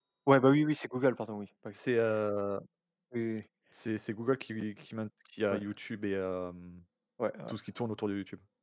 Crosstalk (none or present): none